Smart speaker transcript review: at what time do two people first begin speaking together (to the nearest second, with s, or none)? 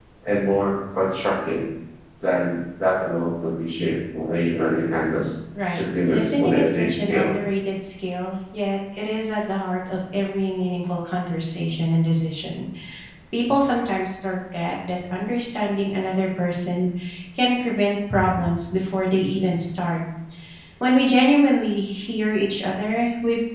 6 s